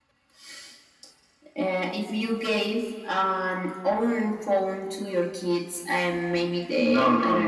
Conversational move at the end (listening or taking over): taking over